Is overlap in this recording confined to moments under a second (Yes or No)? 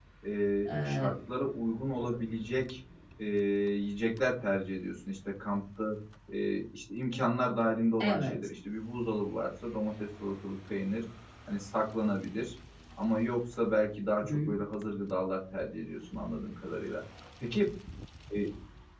Yes